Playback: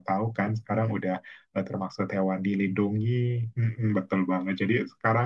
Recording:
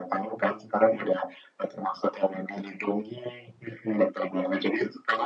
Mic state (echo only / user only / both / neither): echo only